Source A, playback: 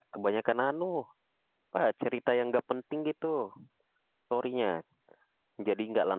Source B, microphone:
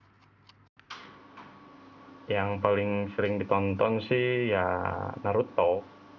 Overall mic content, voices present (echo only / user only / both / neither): user only